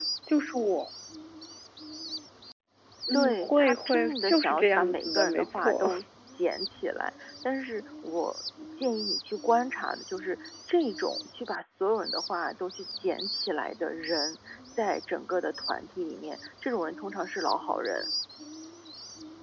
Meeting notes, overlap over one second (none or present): present